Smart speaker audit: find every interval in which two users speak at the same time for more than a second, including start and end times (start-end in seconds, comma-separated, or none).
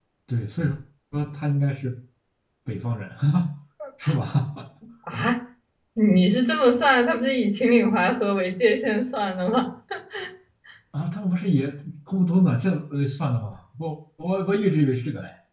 none